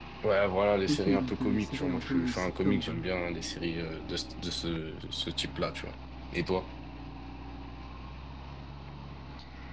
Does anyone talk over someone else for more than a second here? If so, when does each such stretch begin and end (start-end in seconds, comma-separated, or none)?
0.9-3.0